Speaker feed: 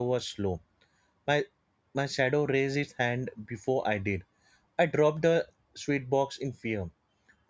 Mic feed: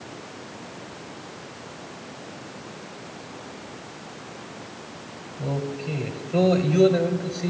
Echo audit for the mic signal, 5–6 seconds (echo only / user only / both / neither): user only